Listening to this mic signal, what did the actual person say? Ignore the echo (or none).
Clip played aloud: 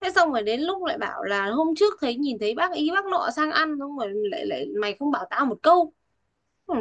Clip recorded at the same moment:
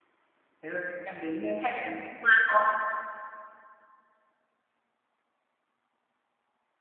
thế rồi em đến đây hay là em qua cho